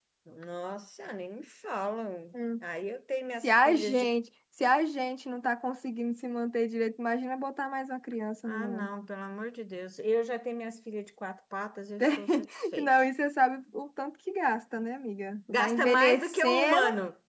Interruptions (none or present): present